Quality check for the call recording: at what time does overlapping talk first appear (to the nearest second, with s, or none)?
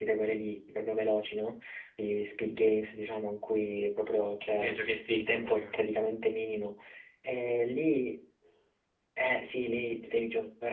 4 s